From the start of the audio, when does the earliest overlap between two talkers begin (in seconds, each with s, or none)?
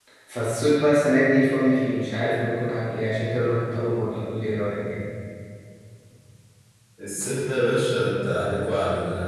none